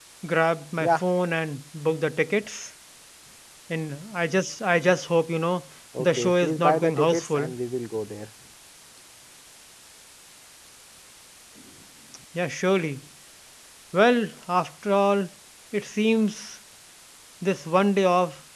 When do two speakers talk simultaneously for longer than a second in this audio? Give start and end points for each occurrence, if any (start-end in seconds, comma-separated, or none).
6.0-7.5